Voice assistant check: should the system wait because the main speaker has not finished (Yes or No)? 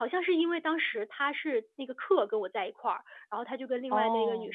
Yes